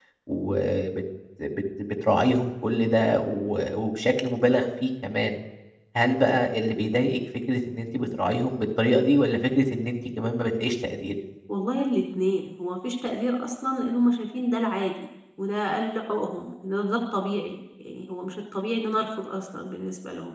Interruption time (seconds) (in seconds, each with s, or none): none